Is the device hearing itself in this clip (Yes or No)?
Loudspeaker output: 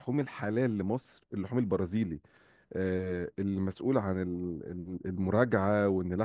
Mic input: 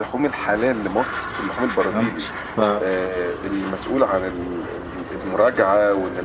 Yes